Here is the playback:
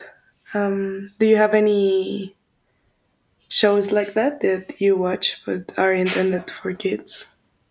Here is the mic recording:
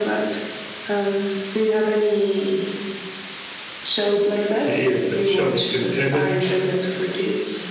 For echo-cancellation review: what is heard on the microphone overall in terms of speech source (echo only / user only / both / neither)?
both